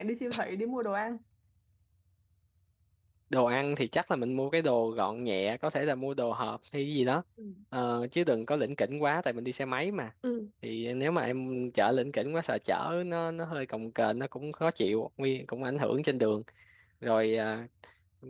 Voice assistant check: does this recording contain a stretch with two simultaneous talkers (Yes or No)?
No